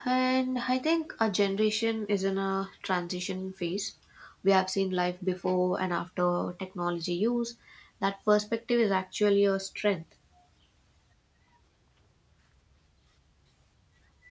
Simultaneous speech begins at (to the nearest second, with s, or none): none